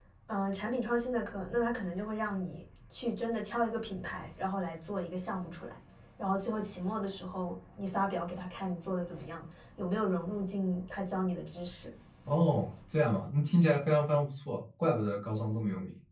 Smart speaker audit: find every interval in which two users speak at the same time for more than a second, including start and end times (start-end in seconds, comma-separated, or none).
none